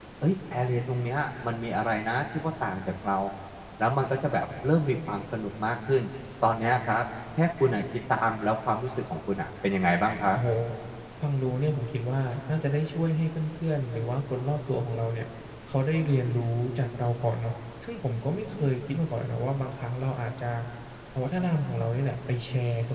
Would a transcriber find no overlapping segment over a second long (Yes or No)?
Yes